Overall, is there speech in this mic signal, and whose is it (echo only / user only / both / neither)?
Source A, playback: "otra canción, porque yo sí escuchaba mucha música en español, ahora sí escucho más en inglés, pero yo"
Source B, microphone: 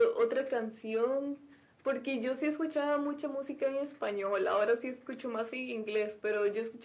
echo only